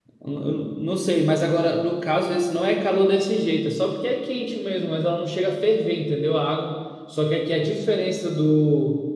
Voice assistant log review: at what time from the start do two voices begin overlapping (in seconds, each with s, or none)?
none